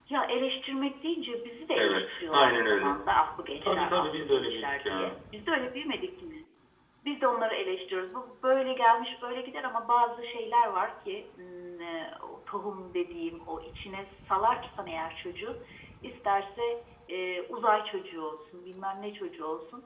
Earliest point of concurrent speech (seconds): 1.8 s

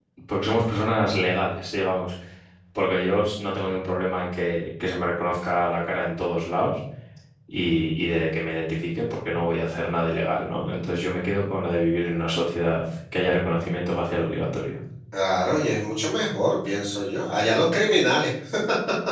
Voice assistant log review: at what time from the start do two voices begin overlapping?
none

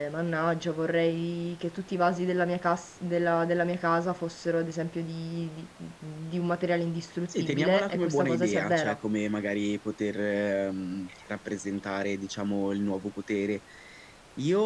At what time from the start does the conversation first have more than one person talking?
7.3 s

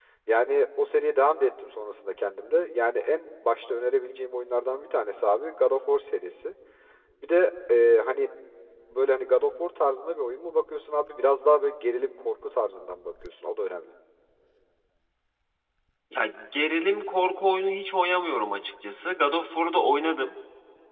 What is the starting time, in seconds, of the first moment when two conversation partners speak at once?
none

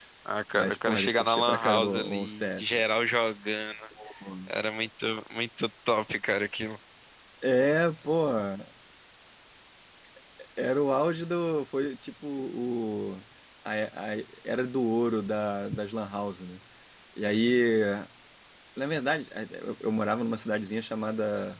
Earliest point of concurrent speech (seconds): 0.6 s

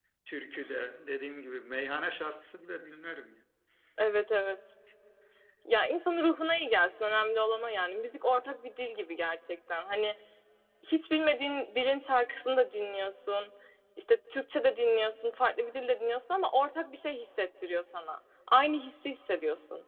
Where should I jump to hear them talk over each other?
none

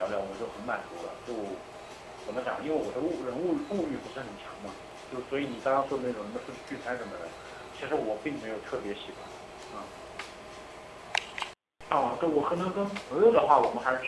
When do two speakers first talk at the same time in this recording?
none

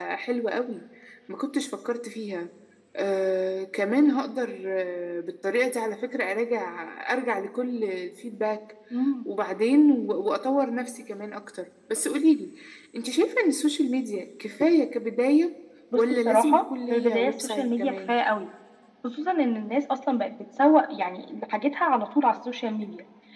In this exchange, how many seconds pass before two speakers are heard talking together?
15.9 s

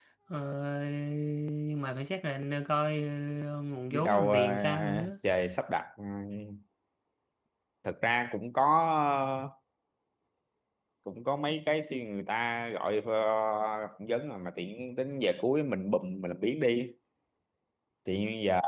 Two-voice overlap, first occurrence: 3.9 s

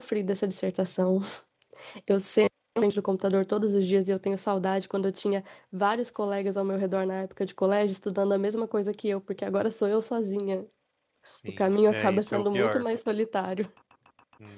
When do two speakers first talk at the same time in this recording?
11.6 s

